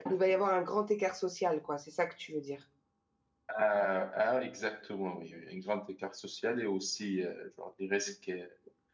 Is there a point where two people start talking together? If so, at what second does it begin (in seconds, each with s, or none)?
none